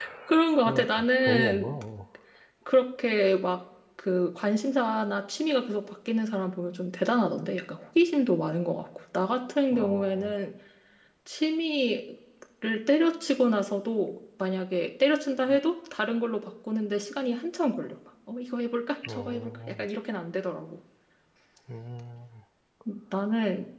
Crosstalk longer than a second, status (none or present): present